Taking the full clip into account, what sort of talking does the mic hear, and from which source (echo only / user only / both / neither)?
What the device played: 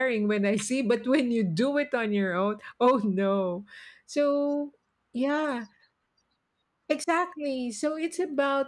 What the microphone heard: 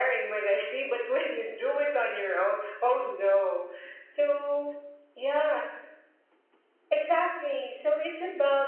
echo only